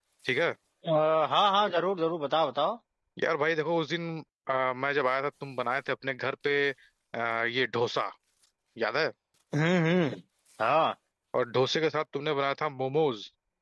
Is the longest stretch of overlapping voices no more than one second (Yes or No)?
Yes